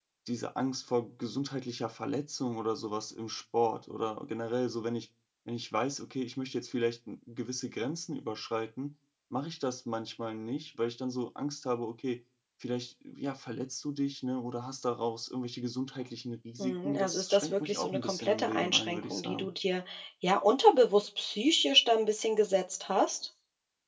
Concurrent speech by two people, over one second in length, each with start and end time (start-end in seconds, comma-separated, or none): 16.6-19.5